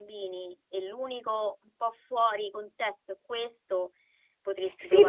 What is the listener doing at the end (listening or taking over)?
taking over